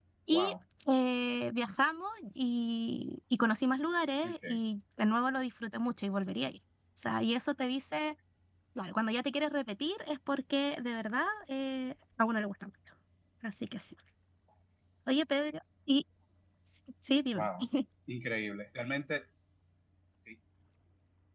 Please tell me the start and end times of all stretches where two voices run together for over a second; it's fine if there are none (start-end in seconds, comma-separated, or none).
none